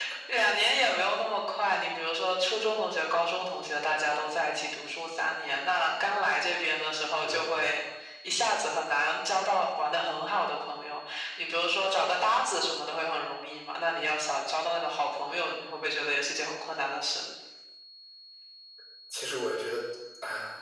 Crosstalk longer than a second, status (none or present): none